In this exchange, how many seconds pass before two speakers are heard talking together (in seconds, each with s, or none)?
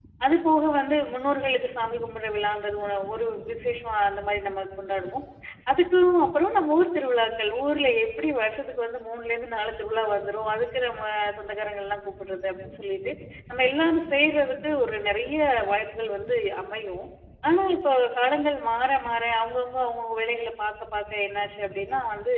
none